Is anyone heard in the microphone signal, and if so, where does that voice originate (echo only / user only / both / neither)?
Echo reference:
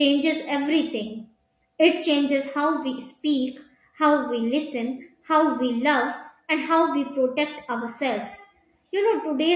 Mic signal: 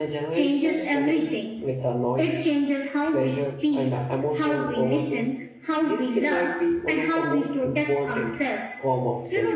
both